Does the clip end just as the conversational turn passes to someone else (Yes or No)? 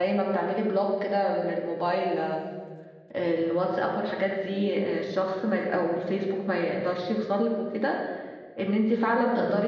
No